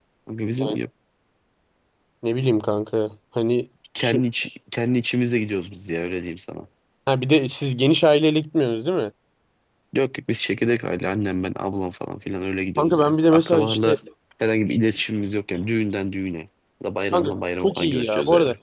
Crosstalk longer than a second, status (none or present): present